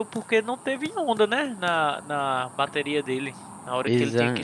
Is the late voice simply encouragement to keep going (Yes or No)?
Yes